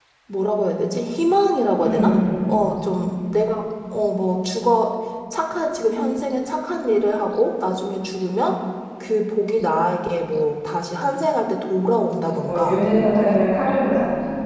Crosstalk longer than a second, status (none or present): none